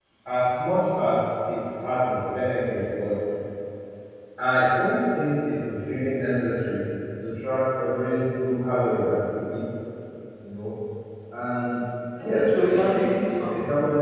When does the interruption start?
12.2 s

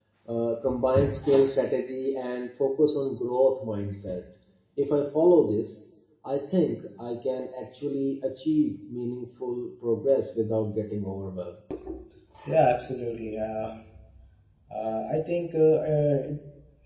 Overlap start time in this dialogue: none

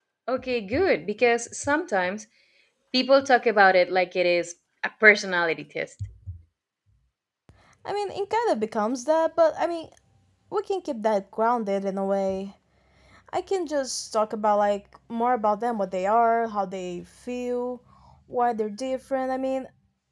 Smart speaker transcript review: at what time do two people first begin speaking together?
none

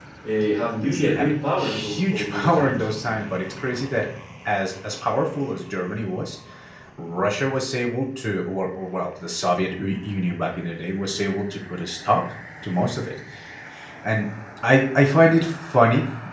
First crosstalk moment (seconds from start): 0.8 s

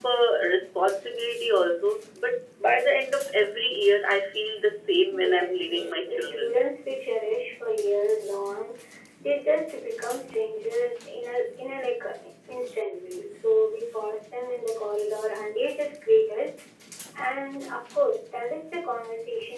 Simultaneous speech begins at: 5.1 s

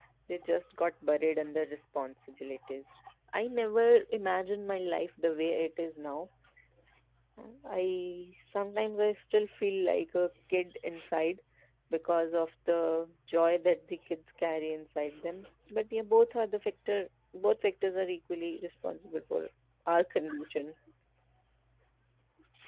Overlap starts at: none

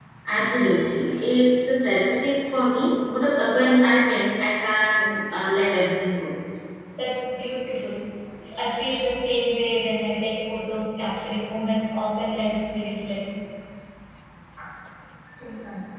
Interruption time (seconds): none

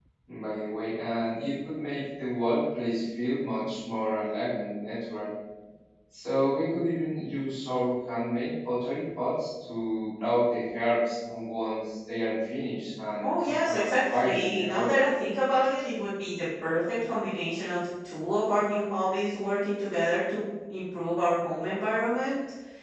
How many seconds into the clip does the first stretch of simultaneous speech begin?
13.7 s

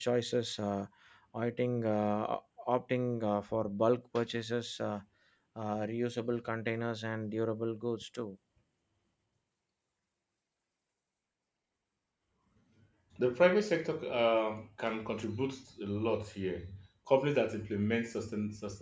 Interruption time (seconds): none

